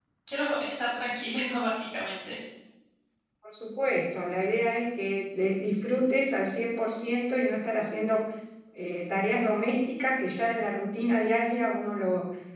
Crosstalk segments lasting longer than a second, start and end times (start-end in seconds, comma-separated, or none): none